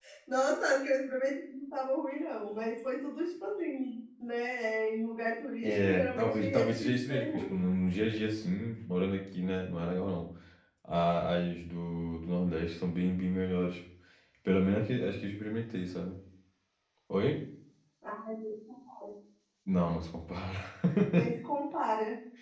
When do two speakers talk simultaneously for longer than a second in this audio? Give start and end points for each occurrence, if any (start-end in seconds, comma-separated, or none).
5.6-7.5